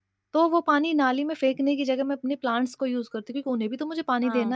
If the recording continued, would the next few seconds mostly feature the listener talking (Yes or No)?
Yes